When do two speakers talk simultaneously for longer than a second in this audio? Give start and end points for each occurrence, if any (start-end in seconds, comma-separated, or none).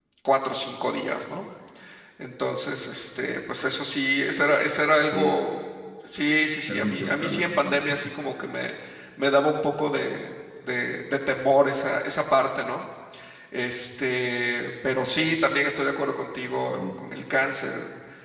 6.7-8.0